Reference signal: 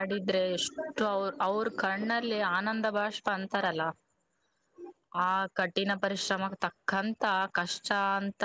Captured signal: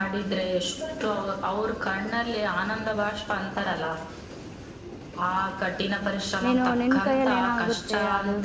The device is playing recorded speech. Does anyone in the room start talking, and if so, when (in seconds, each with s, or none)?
6.5 s